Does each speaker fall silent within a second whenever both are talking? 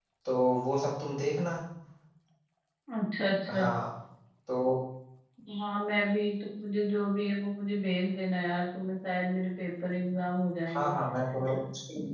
Yes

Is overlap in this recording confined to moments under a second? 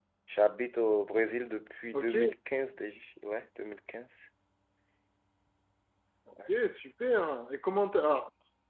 Yes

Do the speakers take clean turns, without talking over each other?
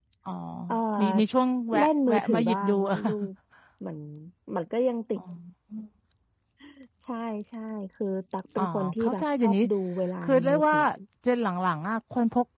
No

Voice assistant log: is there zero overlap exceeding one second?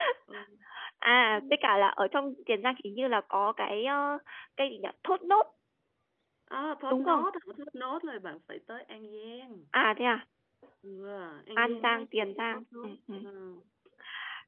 No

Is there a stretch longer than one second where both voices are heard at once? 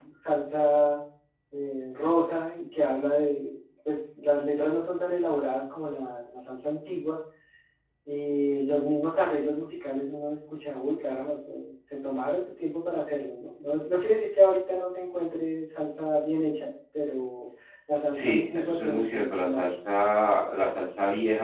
Yes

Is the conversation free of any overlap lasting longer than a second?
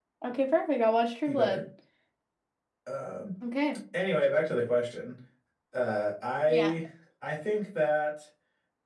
Yes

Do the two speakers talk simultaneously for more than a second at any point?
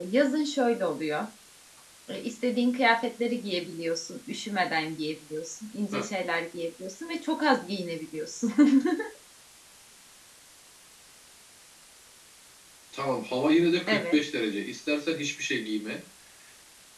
No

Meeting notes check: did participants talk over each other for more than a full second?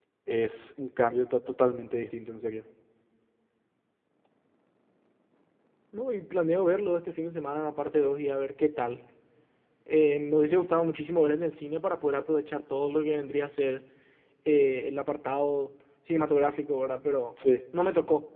No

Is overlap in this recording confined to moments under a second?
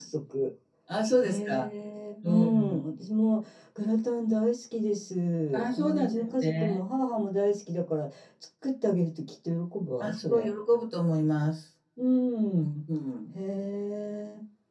No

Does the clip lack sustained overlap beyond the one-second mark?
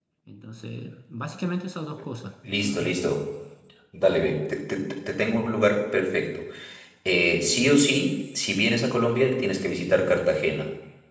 Yes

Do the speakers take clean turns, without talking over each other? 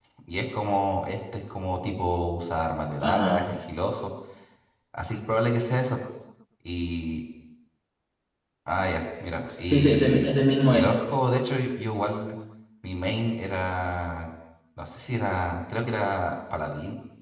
No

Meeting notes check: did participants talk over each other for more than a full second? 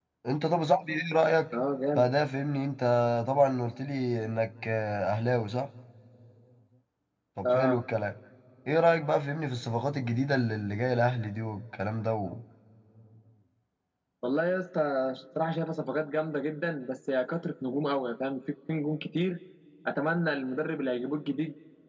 No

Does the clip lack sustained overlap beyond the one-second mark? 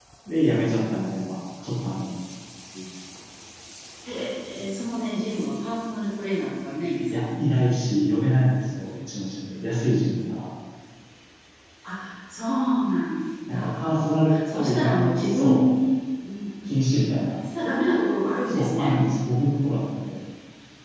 No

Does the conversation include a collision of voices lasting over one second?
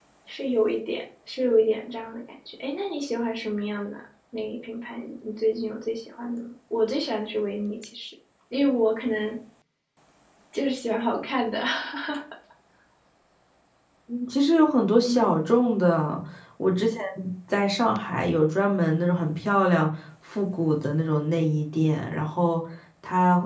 No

